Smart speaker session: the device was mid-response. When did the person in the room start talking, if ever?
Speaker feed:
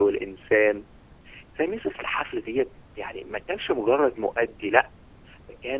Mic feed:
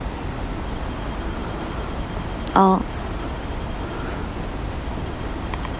2.6 s

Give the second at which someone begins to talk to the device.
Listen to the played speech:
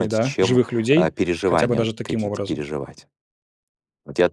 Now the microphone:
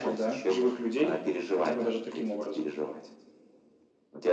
none

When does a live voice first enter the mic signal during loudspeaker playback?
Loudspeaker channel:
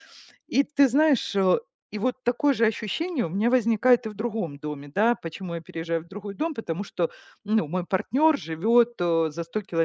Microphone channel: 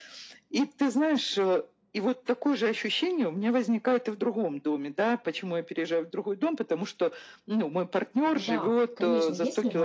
8.3 s

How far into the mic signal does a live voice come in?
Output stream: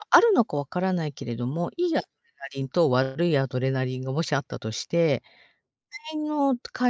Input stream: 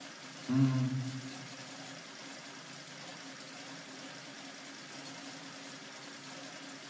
0.5 s

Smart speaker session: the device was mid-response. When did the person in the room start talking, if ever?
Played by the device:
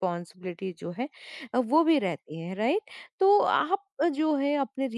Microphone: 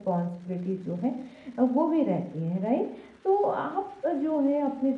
none

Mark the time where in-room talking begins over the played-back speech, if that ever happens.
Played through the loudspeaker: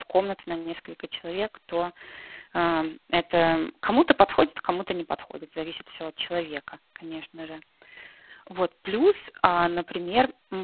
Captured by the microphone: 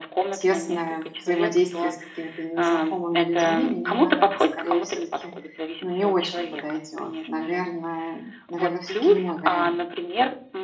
0.3 s

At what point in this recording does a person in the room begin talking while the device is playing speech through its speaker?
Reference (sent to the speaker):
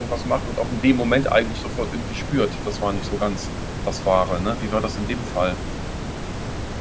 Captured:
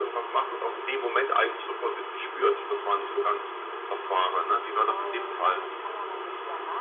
4.9 s

